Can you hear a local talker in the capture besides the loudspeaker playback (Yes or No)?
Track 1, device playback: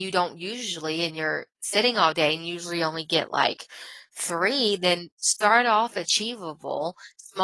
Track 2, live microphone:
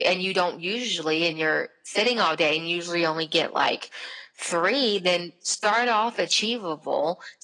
No